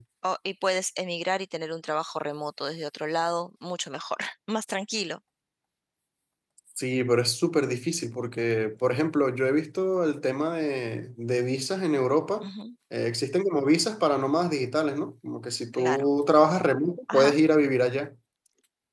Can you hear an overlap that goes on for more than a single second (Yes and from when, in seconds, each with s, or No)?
No